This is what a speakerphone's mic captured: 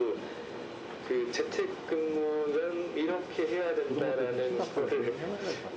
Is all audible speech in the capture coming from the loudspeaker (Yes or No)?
No